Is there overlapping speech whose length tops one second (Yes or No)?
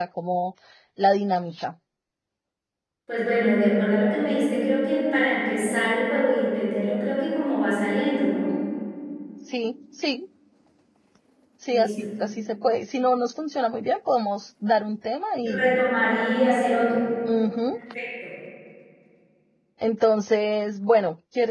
No